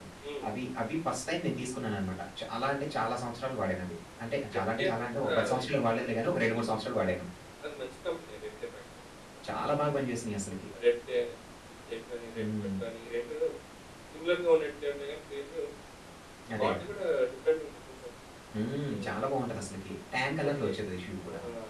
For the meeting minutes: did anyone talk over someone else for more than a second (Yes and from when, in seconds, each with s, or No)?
Yes, from 4.5 s